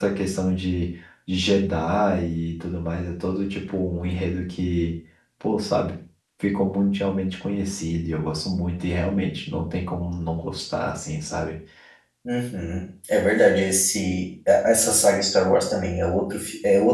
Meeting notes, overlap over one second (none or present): none